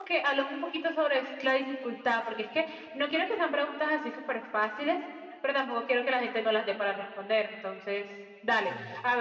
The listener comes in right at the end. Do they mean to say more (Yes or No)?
No